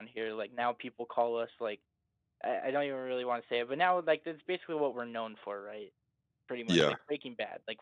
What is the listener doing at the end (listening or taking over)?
listening